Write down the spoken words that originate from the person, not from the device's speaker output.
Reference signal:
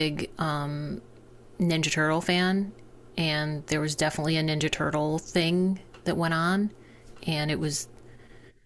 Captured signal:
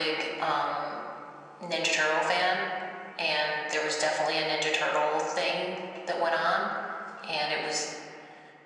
none

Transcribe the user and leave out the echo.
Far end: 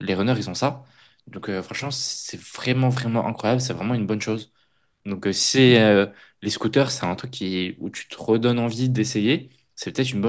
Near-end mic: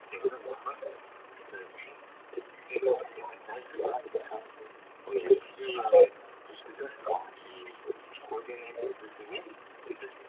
Ok. Et

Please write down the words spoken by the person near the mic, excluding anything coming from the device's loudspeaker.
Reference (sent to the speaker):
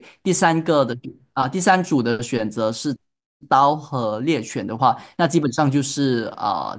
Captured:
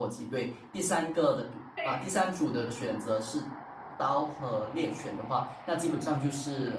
对，

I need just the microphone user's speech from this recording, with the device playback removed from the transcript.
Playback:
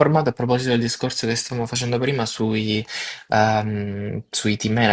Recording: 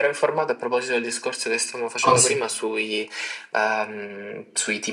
Conse-

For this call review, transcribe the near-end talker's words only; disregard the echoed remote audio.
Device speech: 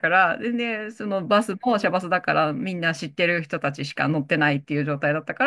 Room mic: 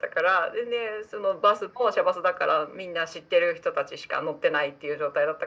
none

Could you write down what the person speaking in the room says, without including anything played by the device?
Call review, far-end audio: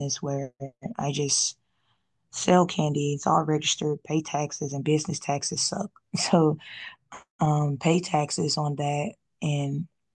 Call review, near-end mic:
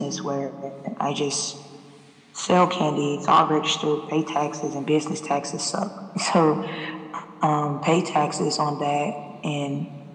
none

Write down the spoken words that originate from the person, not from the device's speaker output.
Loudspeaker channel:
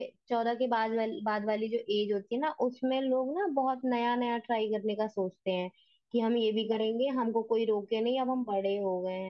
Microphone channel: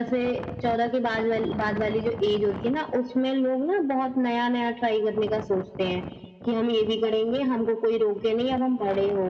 none

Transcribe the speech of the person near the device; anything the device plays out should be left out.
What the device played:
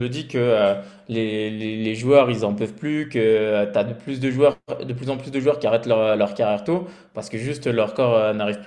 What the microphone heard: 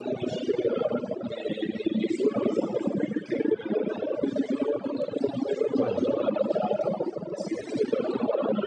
Ouais, donc

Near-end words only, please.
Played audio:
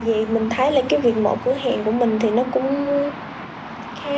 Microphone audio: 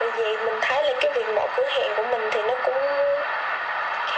none

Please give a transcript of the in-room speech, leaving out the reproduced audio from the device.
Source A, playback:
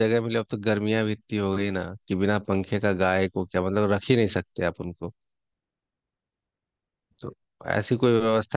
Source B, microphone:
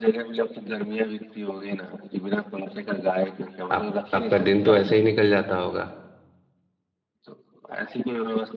आप आपका दिन तो ऐसे ही निकल जाता होगा

